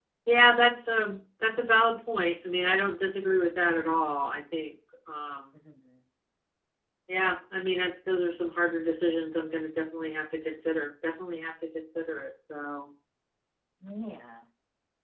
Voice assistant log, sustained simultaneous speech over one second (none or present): none